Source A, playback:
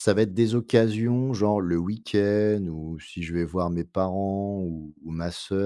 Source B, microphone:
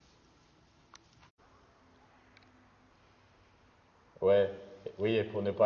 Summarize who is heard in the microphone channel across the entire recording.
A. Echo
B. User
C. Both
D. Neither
B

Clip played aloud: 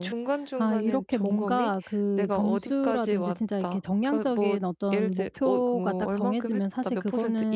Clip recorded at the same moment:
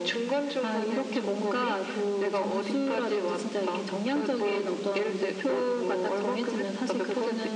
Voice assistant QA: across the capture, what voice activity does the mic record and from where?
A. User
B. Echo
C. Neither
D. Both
B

